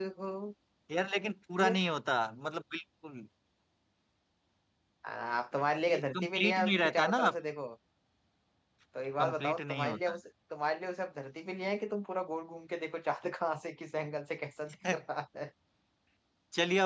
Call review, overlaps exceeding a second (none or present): present